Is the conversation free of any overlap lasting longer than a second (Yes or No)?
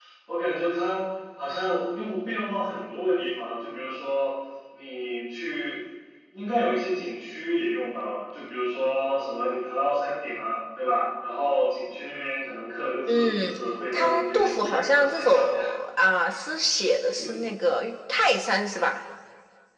No